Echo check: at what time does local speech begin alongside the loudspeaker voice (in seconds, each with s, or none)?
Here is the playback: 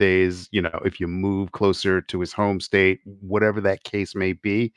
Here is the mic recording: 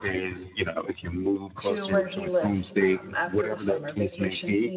1.6 s